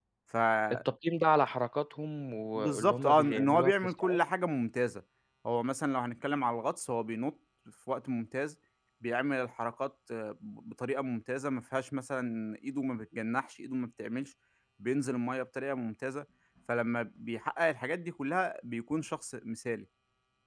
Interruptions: present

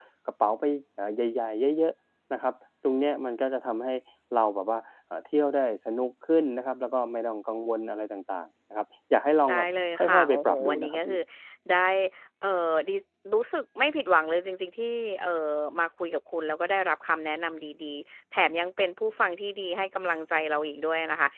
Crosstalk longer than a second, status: present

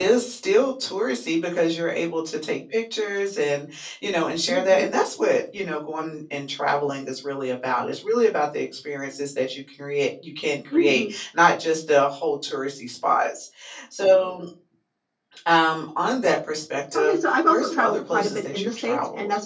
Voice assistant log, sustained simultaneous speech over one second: present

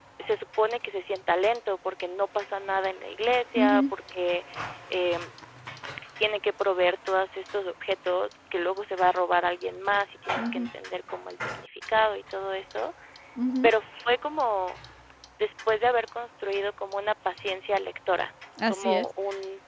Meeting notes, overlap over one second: none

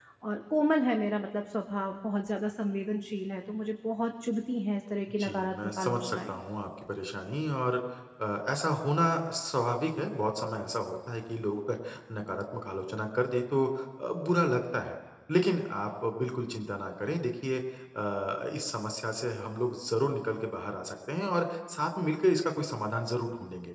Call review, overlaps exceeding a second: present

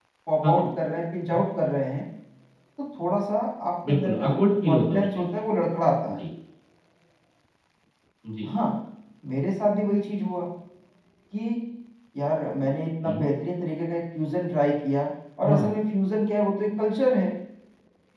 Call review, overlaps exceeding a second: present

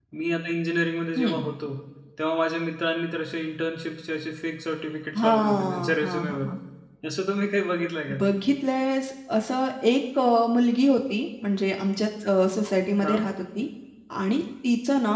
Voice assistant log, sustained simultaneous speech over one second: present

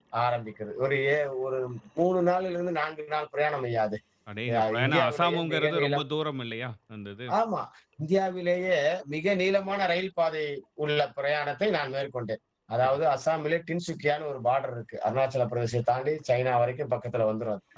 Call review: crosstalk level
present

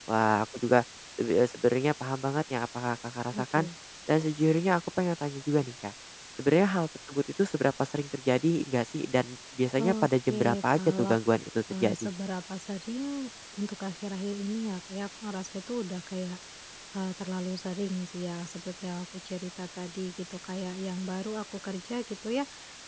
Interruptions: present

